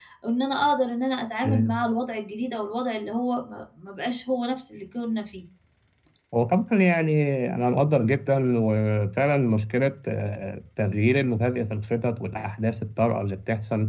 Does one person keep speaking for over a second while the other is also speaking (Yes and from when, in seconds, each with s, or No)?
No